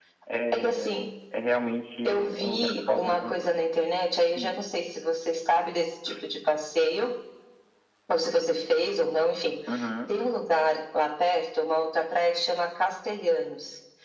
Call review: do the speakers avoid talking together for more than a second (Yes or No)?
No